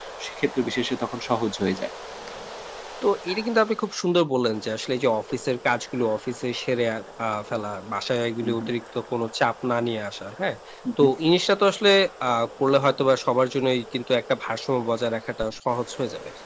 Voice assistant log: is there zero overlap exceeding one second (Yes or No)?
Yes